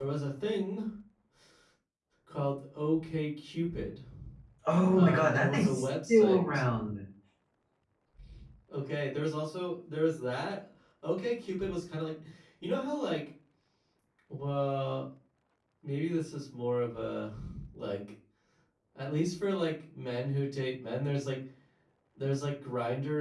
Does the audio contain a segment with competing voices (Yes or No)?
Yes